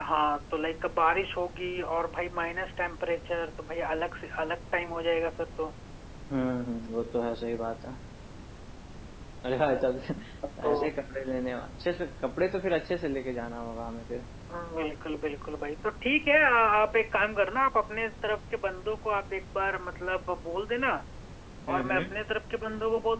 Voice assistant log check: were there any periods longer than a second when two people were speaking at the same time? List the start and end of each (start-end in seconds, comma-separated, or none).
none